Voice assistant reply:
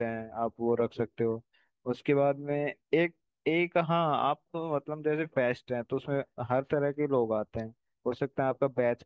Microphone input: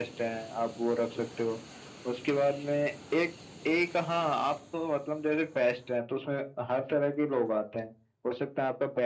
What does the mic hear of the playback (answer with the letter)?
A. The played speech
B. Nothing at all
A